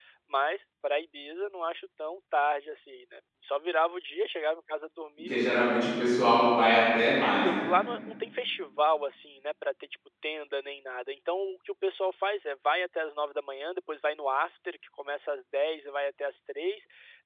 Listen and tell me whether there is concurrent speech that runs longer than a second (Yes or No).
No